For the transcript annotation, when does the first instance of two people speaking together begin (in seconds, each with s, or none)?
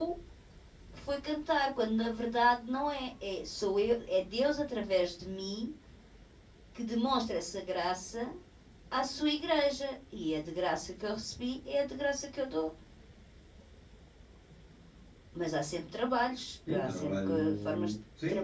16.7 s